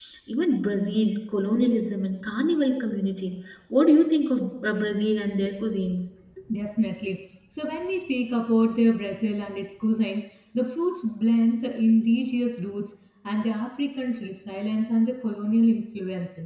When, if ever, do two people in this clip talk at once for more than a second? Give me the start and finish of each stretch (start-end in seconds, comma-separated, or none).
none